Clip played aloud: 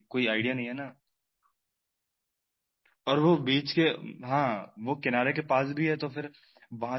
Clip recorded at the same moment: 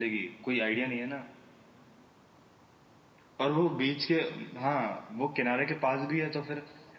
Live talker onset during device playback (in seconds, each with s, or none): none